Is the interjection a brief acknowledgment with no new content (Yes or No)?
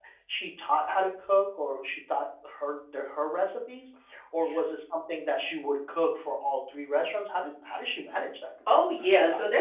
No